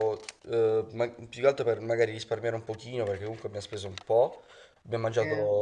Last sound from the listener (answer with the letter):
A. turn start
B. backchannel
B